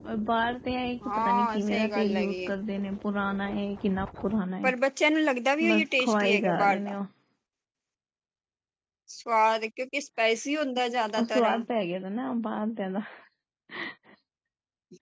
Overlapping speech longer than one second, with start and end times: 1.1-2.5, 5.7-7.0

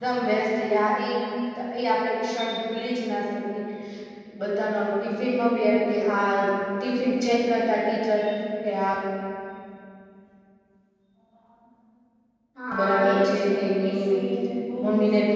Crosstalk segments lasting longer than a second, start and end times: 12.8-14.2

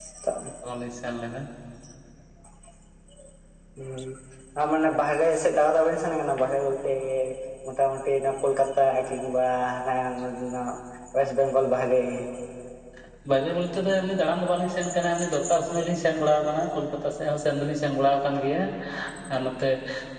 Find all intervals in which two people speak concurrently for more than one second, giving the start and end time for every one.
none

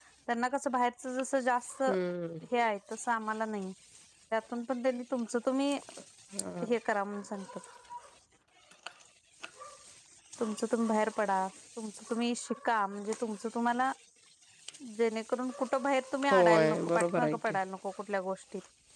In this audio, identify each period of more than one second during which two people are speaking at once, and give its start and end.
16.3-17.6

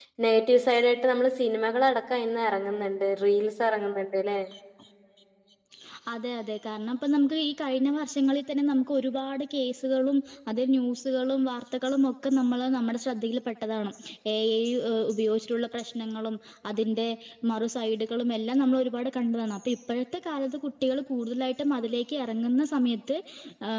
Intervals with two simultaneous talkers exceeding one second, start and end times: none

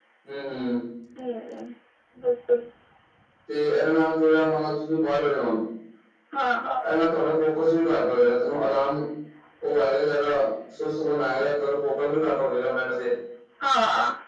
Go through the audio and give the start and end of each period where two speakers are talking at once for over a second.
none

